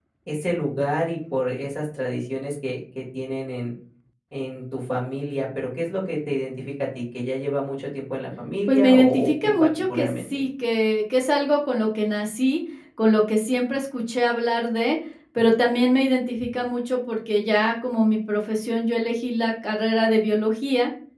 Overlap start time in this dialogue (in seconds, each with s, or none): 8.7 s